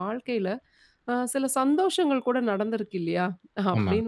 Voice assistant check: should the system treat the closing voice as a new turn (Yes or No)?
No